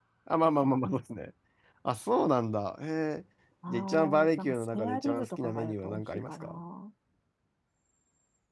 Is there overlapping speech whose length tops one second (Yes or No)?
Yes